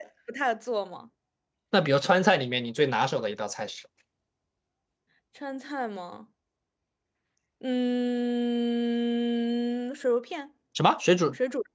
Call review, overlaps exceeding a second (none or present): none